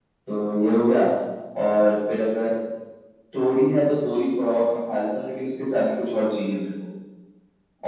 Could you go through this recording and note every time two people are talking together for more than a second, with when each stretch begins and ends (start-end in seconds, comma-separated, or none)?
none